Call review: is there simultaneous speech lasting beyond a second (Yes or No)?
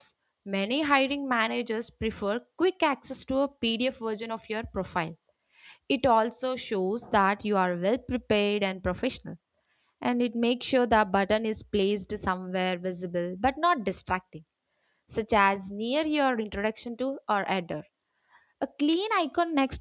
No